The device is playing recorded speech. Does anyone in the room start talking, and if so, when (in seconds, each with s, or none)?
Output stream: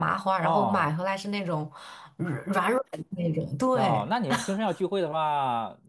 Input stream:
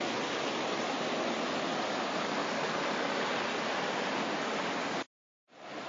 none